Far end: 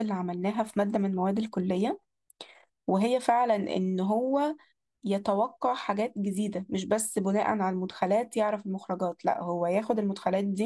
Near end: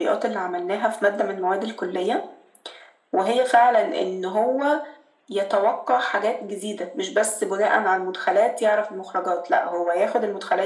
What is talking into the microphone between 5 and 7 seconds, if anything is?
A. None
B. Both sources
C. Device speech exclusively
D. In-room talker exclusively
C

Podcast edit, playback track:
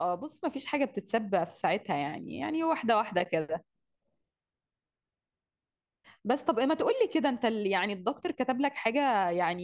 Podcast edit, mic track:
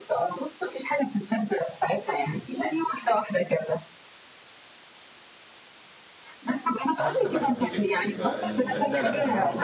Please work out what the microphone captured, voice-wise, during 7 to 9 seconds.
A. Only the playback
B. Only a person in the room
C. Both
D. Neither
C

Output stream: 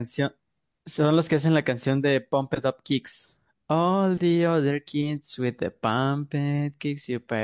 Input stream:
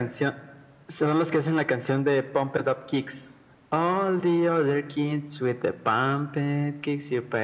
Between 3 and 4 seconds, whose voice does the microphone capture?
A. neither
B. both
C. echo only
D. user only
C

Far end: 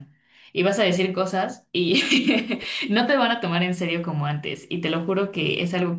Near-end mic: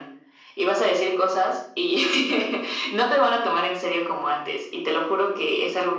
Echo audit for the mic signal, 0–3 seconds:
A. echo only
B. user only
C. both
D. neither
A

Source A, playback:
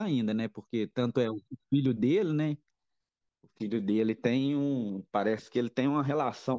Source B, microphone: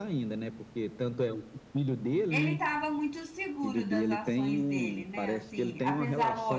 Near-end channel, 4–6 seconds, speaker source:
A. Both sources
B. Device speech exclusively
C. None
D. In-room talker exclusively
A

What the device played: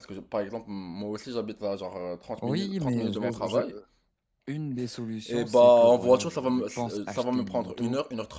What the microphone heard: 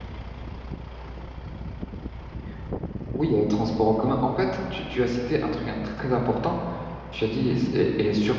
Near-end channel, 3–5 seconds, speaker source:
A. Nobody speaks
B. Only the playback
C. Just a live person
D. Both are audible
C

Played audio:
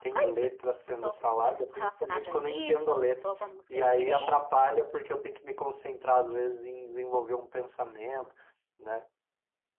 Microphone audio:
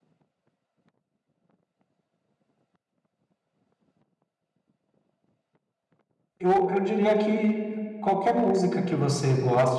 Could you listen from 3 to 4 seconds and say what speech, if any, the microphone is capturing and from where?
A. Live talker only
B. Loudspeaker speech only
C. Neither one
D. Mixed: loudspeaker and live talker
C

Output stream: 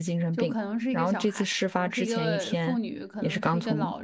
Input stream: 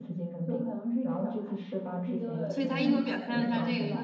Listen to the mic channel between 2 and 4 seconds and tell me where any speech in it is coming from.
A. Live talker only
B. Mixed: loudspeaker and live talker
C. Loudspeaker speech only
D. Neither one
B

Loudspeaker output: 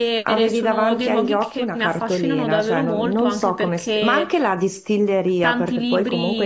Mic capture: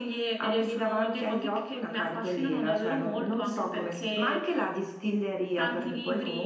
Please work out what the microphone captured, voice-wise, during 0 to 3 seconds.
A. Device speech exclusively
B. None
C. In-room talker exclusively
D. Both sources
A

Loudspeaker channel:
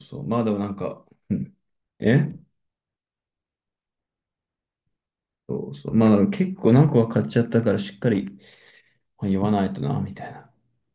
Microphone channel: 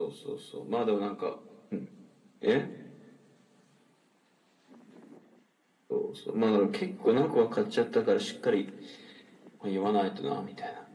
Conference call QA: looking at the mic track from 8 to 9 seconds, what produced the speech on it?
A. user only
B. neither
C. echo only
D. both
C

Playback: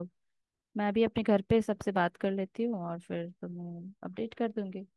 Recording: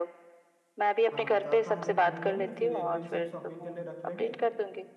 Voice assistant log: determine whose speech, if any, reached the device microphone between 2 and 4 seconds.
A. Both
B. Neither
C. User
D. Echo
A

